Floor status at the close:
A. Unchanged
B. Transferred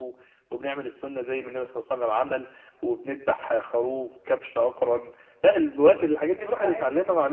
A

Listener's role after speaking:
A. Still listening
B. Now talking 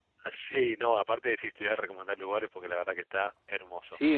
B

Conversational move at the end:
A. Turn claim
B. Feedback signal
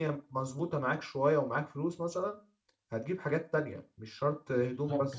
A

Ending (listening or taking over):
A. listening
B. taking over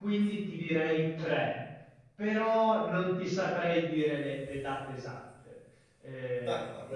B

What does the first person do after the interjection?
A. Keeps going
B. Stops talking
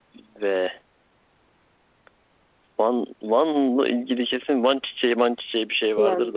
B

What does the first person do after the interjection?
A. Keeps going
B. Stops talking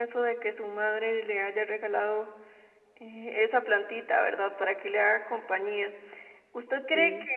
A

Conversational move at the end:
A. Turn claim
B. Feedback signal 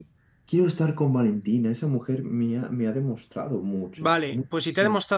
A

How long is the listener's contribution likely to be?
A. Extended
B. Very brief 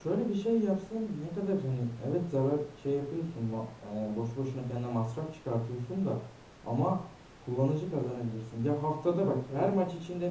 B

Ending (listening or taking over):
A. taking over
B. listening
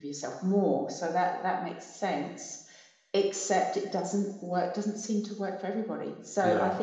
B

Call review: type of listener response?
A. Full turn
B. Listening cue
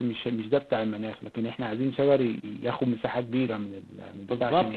A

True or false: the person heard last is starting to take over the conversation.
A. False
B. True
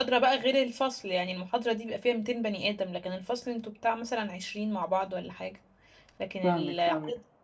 B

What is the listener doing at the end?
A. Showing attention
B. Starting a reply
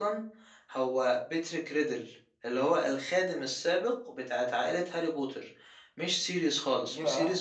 B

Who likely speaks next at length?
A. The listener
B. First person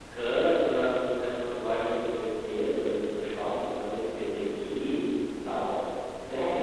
A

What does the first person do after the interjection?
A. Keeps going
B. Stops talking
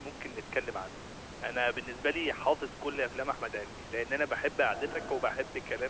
A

